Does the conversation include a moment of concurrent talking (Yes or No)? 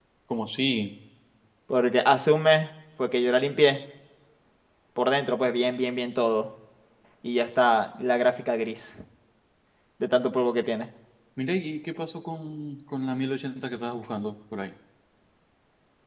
No